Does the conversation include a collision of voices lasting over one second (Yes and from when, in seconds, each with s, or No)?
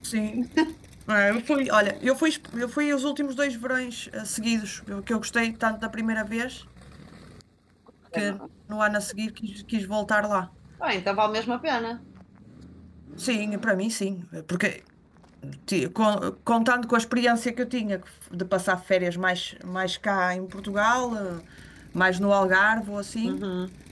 No